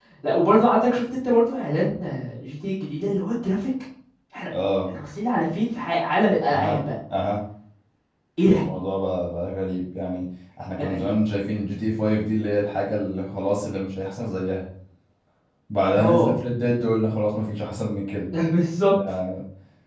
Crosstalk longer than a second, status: none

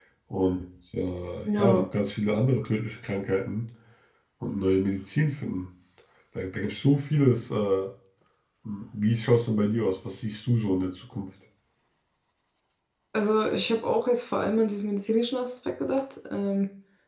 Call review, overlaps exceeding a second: none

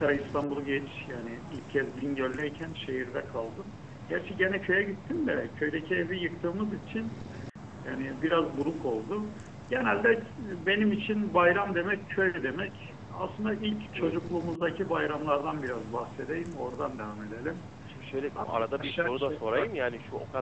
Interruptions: present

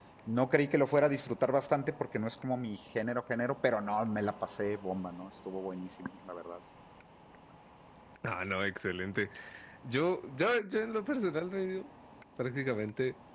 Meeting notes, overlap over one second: none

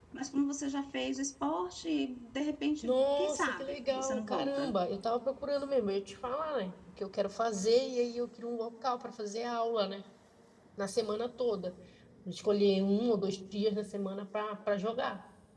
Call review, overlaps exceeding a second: present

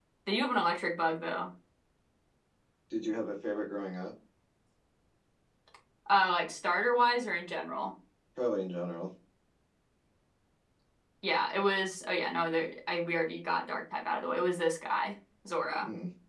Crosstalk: none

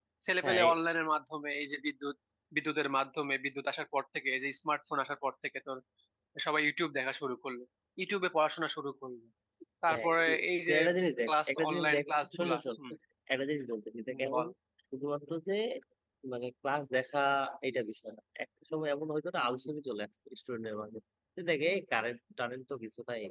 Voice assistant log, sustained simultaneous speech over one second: present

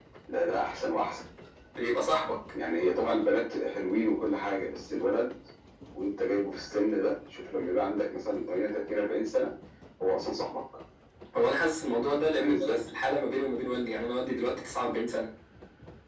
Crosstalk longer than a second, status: none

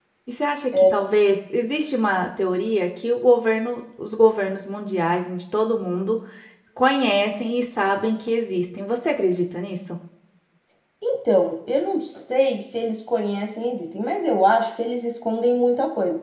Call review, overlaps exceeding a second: none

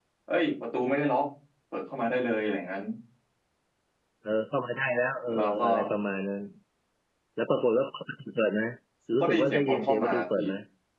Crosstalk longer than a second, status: present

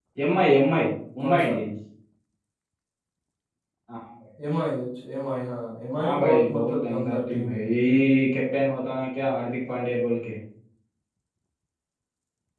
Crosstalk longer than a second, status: present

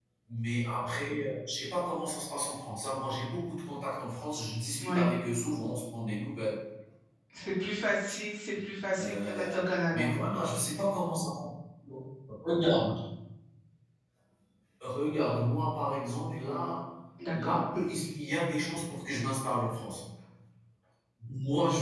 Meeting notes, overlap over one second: present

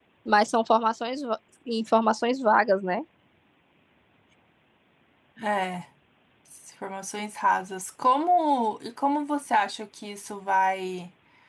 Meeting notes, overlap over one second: none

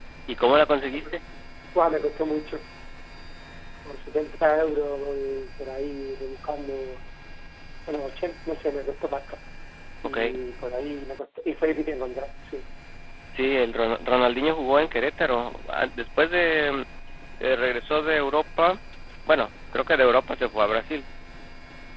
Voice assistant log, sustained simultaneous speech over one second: none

